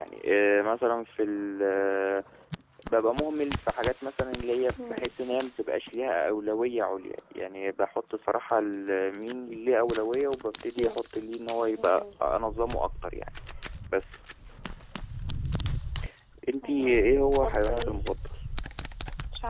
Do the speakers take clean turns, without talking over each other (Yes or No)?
No